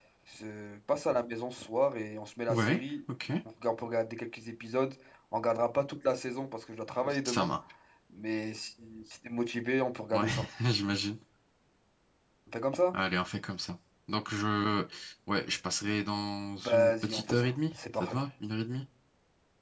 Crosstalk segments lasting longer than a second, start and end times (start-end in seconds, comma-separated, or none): 16.6-18.2